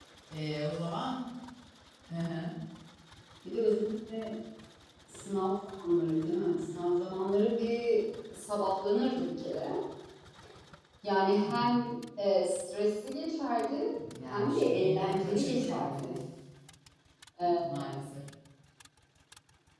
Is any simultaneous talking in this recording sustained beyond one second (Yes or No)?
Yes